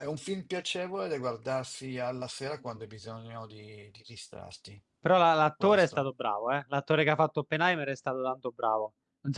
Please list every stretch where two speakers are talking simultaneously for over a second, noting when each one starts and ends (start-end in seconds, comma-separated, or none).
none